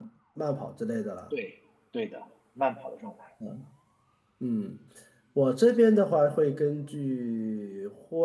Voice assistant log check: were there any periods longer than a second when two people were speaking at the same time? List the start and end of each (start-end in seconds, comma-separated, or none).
none